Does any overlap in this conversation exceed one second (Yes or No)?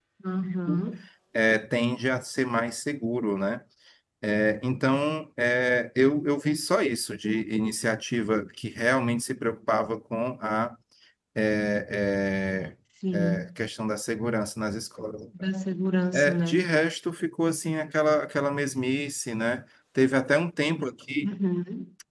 No